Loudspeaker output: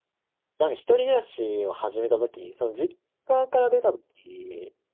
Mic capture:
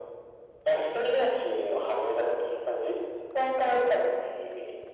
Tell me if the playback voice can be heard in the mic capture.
Yes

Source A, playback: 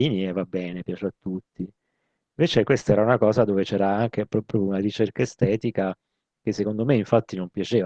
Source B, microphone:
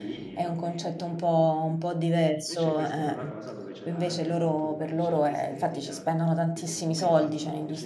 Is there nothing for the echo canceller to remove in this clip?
No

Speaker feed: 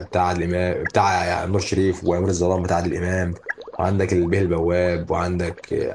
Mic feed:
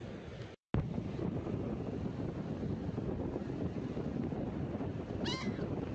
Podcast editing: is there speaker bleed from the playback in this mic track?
No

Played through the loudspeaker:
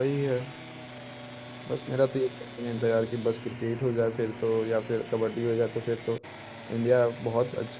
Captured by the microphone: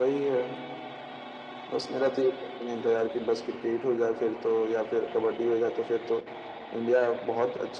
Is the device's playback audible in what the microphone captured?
Yes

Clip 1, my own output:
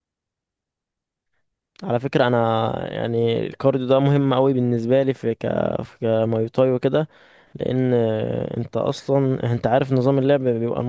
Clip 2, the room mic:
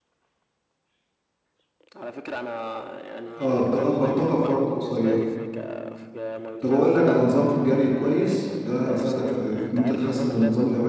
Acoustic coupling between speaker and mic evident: Yes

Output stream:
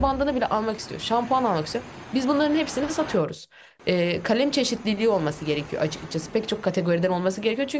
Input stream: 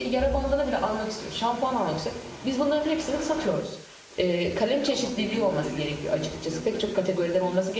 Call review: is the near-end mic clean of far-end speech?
No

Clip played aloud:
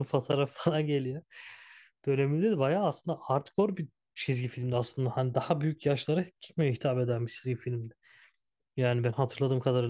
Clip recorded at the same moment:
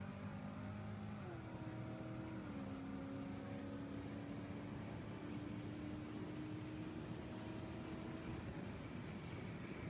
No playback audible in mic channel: Yes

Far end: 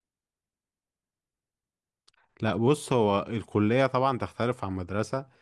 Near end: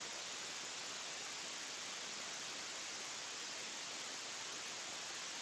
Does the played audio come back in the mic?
No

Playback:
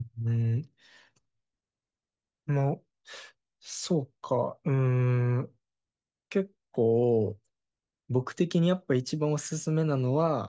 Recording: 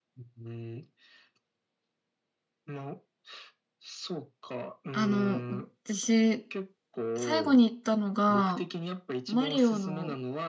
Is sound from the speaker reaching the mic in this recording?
Yes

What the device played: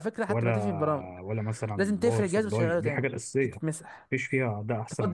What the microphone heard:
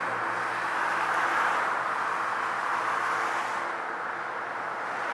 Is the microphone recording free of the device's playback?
Yes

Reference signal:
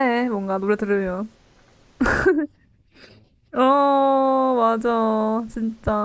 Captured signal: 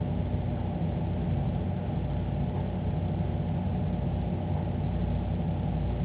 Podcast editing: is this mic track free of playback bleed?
Yes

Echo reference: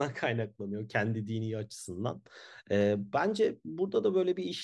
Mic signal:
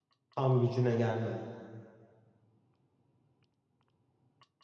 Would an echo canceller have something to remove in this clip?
No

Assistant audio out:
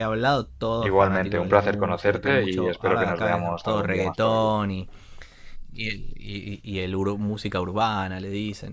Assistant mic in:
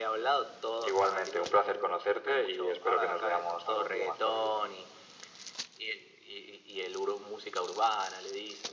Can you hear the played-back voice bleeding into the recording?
Yes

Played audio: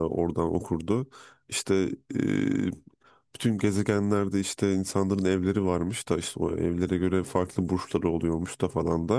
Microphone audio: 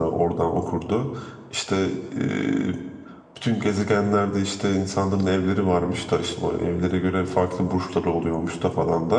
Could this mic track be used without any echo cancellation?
No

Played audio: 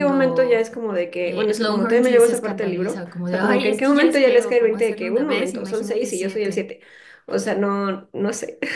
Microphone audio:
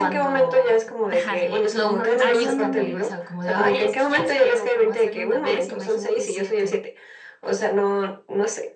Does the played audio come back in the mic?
Yes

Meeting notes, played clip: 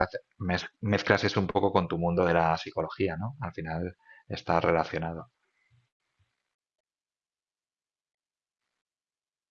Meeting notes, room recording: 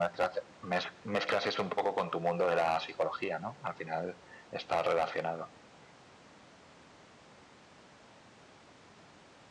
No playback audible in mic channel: No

